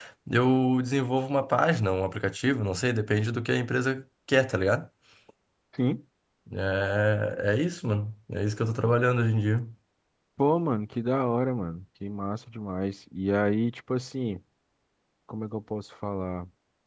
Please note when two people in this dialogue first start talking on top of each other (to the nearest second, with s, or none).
none